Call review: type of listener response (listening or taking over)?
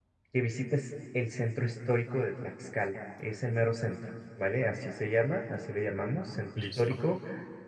listening